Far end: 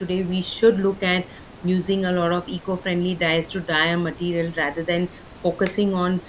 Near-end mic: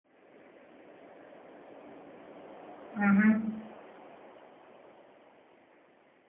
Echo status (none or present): none